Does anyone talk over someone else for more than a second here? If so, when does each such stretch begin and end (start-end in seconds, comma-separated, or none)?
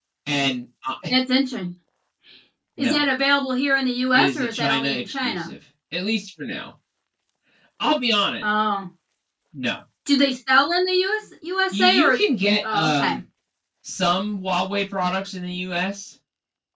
4.1-5.5